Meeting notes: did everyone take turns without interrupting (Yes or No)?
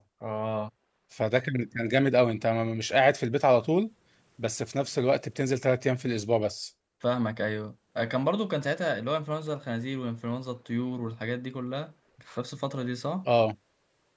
Yes